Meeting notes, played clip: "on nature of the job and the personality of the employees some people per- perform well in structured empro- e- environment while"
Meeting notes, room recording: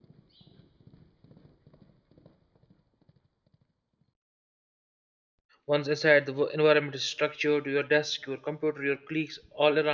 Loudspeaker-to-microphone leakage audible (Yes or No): No